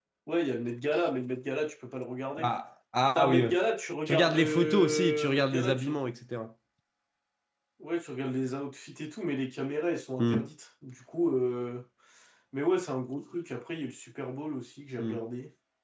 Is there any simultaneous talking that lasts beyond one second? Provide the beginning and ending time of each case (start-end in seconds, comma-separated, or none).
4.1-5.9